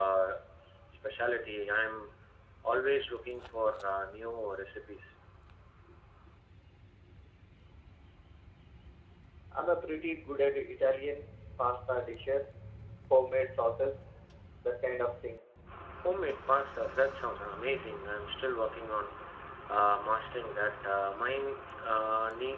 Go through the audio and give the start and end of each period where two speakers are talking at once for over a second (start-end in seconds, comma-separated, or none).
none